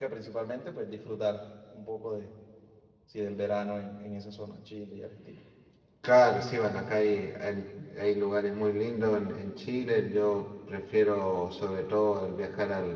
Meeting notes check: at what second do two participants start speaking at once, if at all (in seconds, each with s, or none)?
none